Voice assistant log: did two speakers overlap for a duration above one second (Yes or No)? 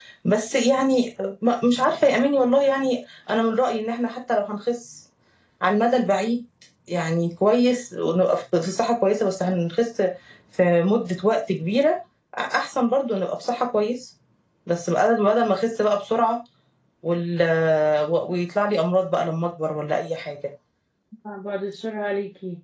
No